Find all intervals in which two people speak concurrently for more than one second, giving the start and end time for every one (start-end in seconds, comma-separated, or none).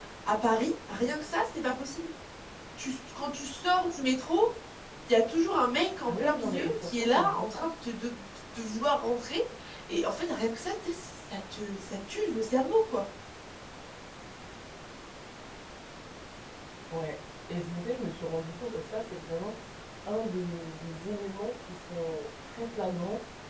6.1-7.7